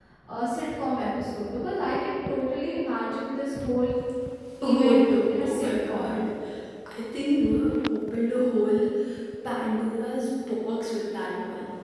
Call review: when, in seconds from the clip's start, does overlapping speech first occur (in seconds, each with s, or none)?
4.6 s